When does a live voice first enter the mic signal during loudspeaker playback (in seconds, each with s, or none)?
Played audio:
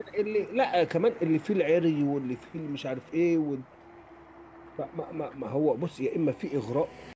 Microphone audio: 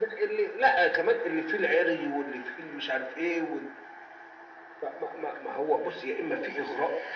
none